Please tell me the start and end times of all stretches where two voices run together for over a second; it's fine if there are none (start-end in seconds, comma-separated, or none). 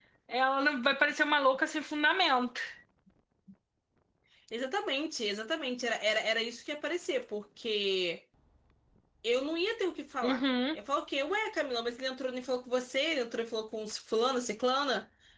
none